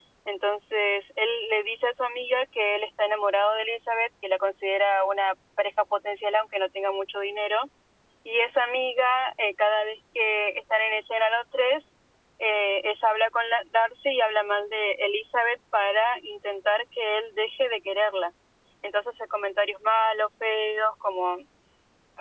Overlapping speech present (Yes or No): No